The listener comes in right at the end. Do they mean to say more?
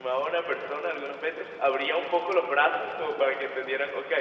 No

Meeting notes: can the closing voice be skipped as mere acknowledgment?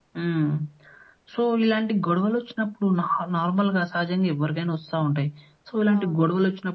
Yes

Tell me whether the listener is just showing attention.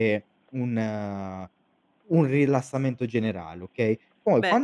No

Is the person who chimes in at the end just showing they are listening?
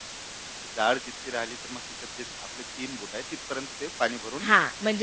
No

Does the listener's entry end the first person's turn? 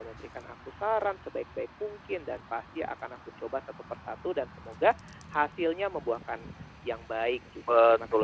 Yes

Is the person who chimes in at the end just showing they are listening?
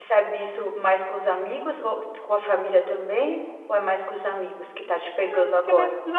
No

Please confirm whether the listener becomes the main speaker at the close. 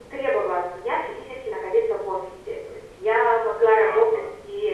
No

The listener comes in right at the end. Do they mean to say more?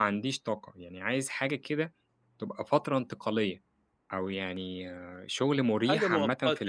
Yes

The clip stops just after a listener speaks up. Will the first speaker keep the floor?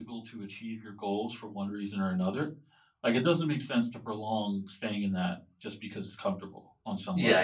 No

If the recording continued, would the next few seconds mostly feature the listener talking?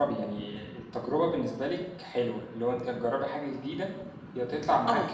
No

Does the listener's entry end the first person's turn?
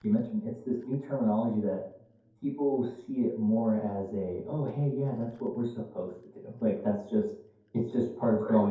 No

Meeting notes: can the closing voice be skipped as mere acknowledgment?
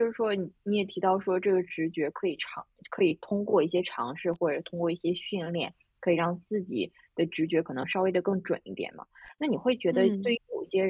Yes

